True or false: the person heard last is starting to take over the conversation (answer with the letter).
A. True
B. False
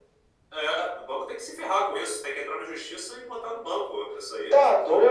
A